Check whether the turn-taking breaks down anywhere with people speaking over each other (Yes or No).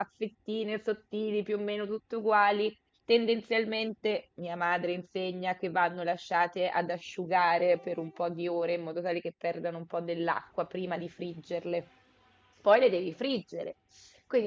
No